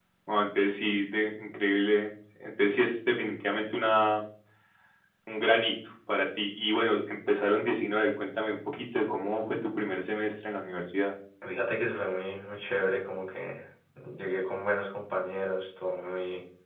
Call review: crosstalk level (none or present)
none